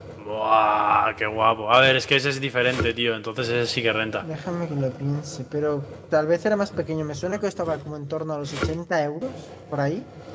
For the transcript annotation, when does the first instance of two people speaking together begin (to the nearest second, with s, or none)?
none